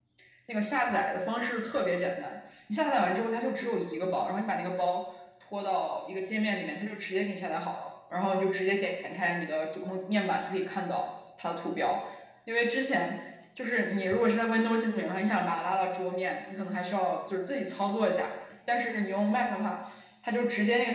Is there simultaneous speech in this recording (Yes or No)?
No